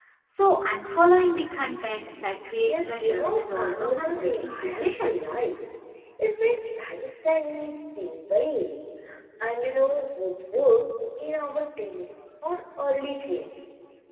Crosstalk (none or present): present